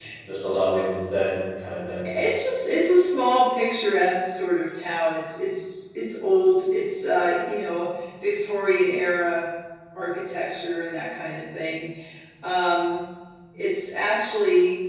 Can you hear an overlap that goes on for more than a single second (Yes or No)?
No